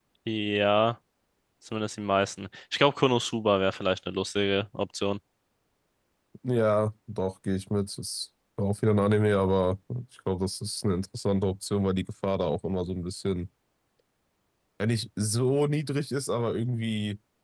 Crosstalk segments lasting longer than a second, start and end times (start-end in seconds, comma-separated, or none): none